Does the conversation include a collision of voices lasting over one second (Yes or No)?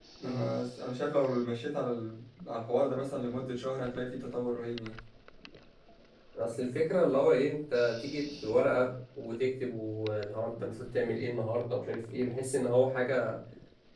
No